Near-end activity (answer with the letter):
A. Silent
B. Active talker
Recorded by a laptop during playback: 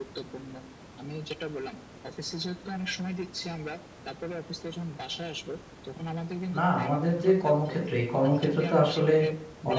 B